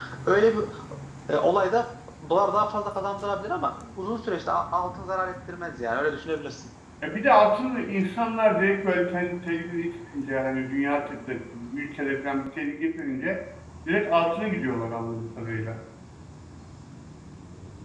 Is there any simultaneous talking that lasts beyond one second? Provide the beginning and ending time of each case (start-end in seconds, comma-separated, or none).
none